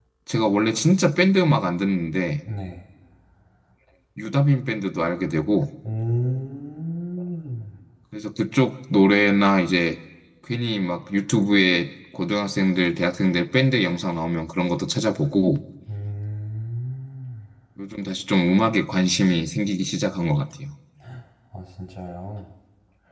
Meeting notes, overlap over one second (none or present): none